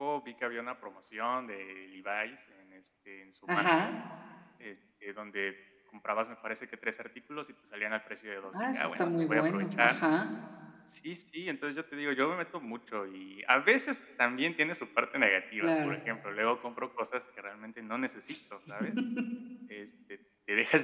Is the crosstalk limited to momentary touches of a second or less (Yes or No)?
No